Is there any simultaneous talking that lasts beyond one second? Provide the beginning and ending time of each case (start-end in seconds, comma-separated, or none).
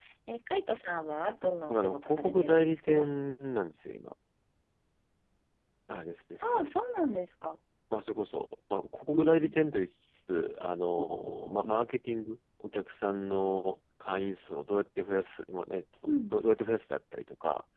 1.7-3.1